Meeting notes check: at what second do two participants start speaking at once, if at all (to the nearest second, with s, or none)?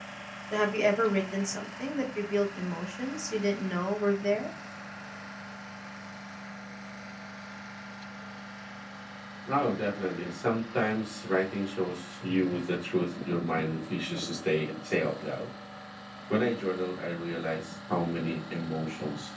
none